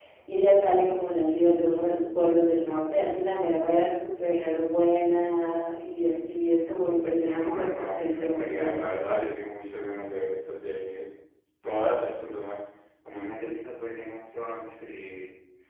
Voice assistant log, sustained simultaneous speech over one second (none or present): present